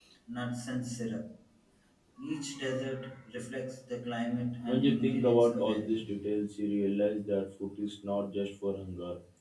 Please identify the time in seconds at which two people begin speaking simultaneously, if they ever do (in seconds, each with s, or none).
4.7 s